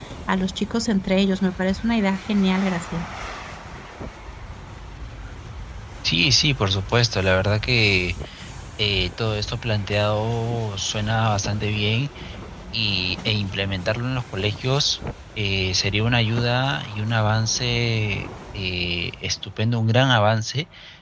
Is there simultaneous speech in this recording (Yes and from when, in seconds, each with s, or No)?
No